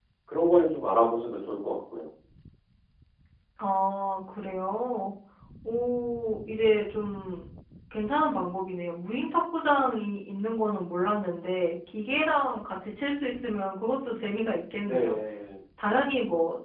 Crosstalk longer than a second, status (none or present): none